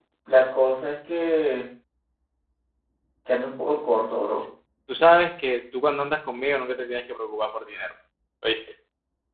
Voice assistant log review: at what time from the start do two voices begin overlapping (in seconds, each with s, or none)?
none